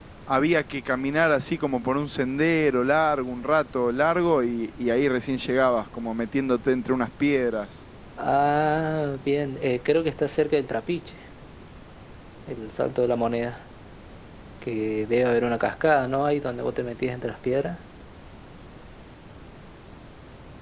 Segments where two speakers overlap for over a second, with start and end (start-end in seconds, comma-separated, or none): none